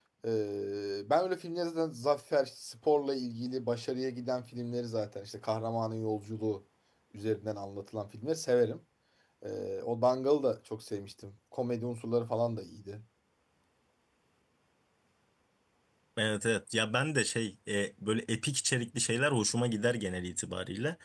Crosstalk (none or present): none